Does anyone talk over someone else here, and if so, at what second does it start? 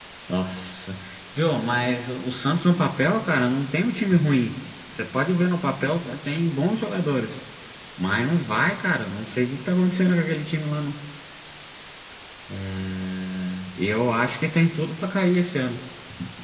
none

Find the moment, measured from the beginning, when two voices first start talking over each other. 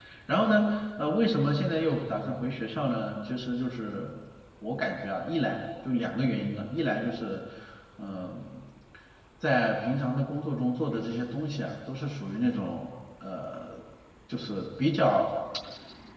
none

